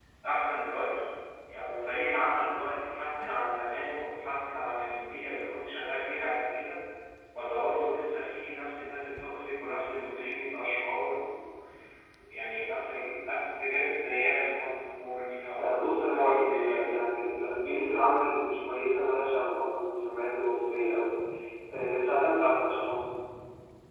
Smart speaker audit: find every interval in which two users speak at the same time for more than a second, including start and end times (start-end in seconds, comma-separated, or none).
15.6-16.8